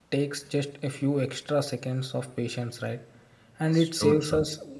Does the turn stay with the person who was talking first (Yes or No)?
Yes